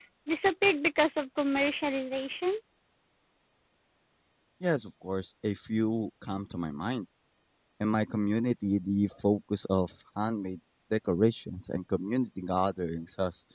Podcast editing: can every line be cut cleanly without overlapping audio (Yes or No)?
Yes